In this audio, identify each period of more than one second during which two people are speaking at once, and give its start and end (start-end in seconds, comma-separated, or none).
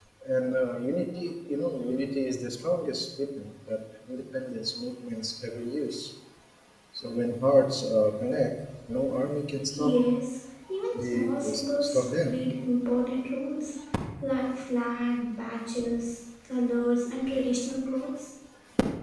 10.9-12.3